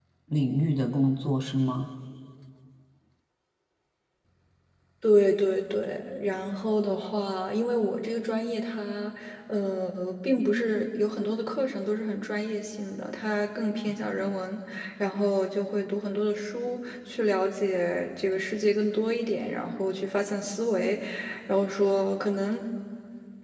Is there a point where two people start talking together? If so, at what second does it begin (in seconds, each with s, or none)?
none